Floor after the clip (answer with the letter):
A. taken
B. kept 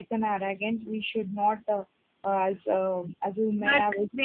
A